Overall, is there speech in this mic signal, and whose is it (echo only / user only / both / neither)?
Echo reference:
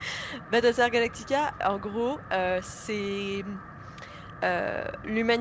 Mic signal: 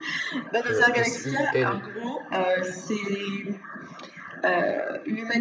both